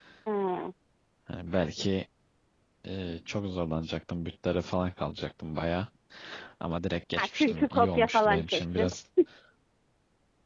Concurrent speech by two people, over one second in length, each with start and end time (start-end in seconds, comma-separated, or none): 7.2-8.9